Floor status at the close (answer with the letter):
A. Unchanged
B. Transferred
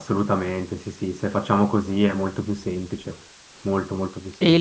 B